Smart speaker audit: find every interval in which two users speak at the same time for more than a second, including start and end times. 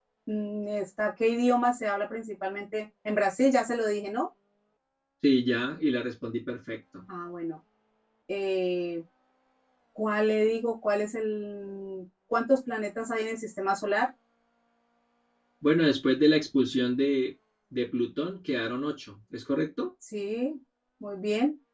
none

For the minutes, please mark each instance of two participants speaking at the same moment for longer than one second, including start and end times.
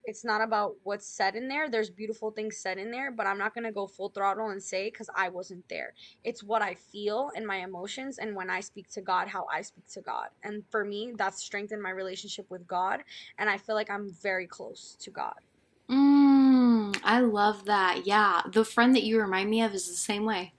none

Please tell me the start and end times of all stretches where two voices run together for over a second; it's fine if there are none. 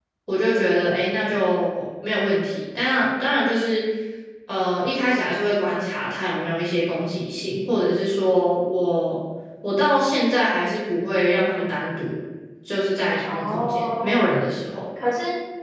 13.2-14.4

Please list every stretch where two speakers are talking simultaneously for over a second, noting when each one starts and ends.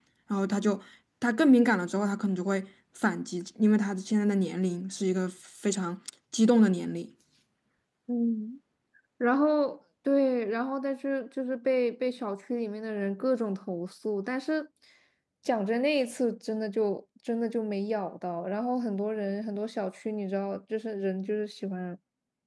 none

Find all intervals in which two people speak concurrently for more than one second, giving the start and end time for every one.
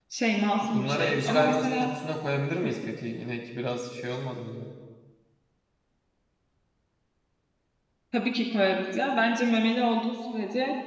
0.6-1.9

